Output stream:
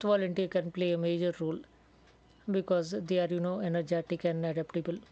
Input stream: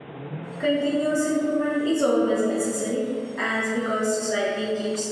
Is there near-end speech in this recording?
Yes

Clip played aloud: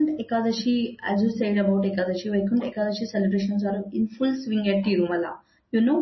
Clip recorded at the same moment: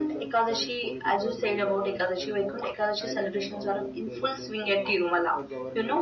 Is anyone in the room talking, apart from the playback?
Yes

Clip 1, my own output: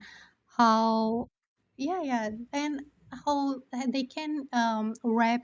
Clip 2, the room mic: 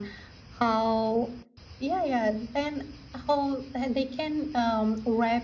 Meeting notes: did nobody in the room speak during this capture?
Yes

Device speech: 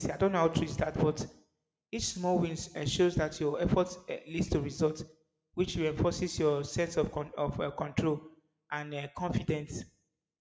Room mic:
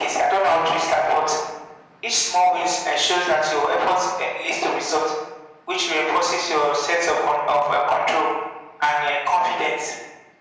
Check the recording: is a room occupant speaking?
No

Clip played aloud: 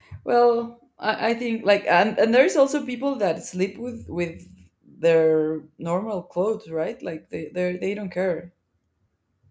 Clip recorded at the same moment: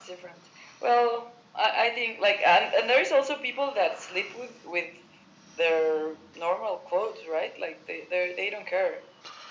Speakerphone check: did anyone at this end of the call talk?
No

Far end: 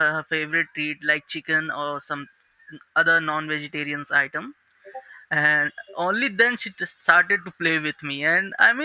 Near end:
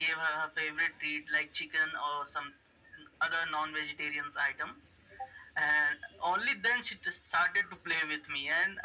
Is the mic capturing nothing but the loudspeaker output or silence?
Yes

